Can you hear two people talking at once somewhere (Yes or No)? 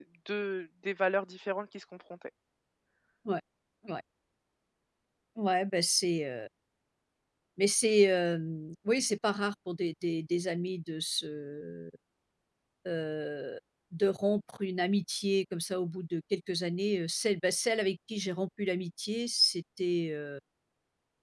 No